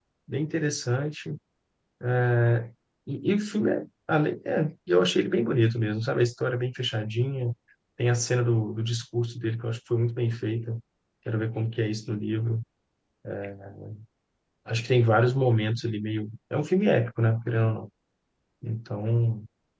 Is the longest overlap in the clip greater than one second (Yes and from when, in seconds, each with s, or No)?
No